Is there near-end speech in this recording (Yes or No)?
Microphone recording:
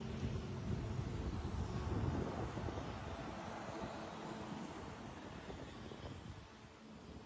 No